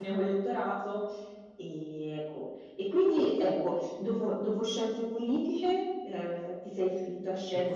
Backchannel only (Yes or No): No